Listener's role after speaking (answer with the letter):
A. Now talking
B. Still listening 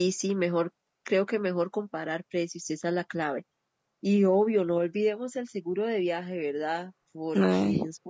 B